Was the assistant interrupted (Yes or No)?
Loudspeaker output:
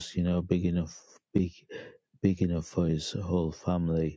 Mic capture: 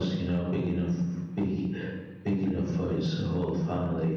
No